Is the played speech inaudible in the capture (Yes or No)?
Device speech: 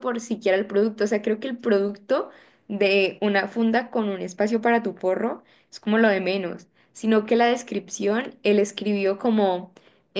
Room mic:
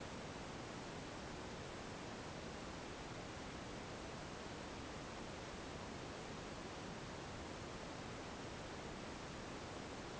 Yes